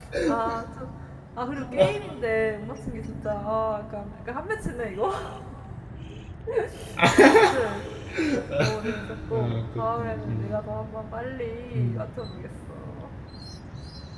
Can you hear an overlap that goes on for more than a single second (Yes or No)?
Yes